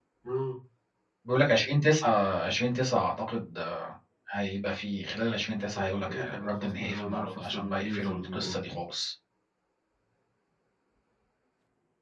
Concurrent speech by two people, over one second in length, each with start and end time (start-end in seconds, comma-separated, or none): 5.8-8.6